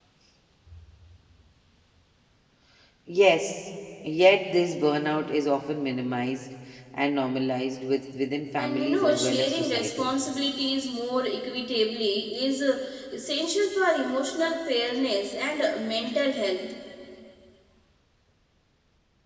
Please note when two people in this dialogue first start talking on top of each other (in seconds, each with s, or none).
8.6 s